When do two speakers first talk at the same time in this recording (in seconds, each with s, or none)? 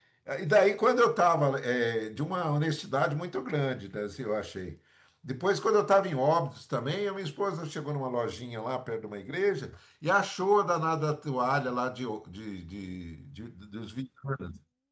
none